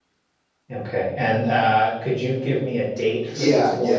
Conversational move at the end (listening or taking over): taking over